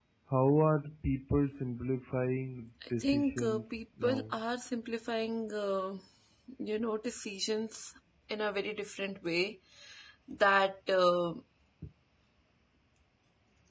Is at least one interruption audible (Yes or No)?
Yes